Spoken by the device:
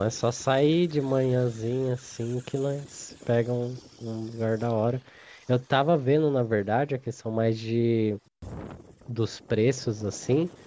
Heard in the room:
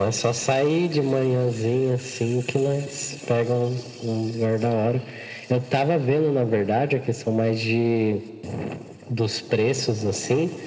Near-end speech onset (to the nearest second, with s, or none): none